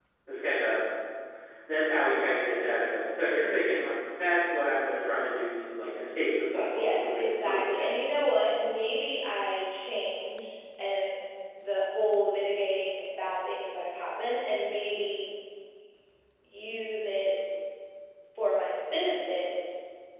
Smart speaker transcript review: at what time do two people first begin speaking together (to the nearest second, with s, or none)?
7 s